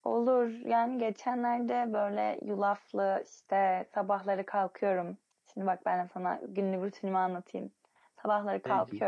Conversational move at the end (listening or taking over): listening